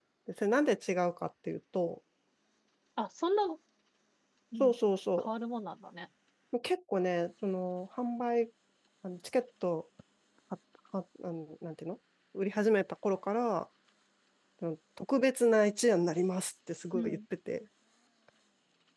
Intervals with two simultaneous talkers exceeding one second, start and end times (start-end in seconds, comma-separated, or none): none